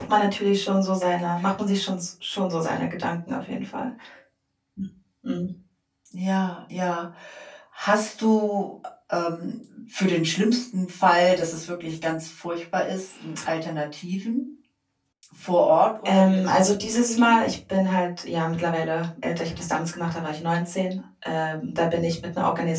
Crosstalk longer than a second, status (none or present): present